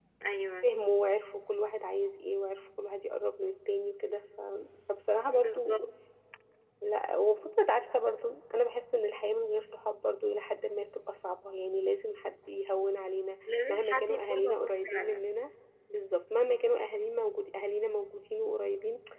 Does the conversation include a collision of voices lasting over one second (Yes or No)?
Yes